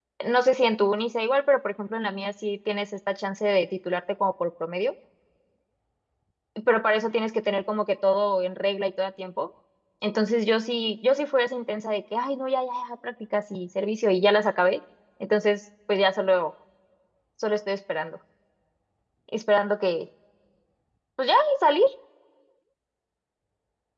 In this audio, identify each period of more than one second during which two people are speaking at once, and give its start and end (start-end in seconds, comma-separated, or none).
none